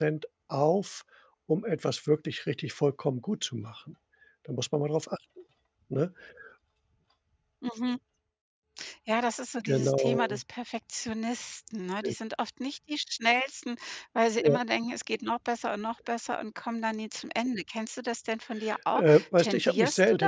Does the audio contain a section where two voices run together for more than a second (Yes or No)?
Yes